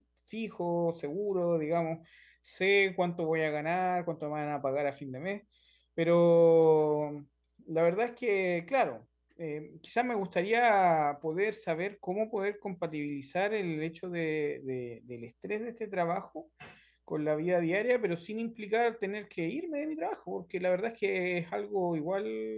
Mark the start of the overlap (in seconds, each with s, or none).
none